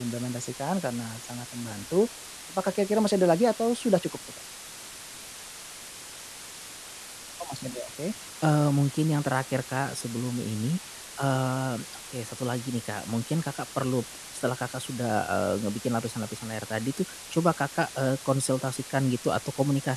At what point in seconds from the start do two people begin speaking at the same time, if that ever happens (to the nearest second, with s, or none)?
none